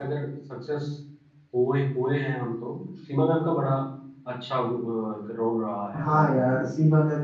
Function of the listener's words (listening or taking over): taking over